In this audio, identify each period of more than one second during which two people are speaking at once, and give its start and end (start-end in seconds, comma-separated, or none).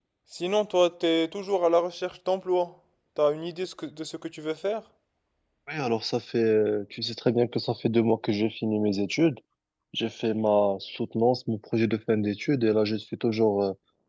none